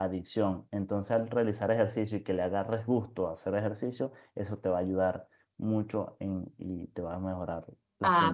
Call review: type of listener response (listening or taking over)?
taking over